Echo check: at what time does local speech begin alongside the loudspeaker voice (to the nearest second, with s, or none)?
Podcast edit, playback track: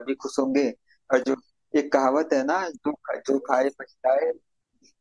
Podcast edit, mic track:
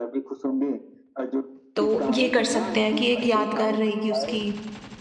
2 s